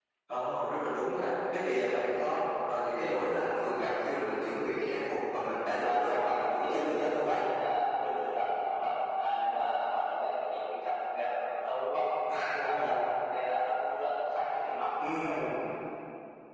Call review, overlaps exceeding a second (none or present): present